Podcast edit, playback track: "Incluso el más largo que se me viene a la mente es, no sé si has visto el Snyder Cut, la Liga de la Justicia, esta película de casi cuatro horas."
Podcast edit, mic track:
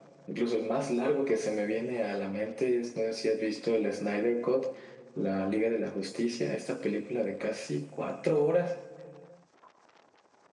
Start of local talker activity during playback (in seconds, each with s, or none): none